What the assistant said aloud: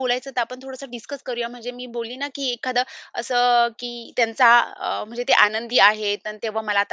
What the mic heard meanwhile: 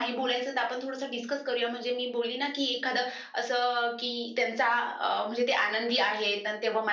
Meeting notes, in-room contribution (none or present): none